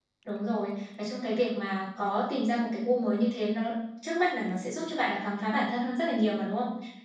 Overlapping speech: No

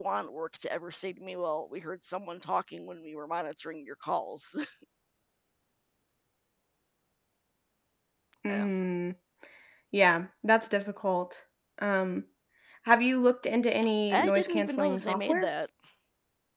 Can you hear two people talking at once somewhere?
Yes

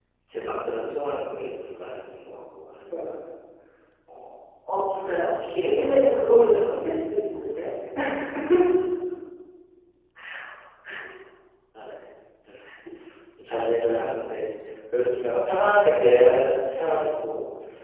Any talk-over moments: Yes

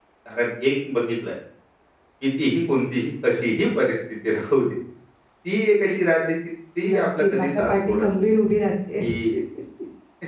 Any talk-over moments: Yes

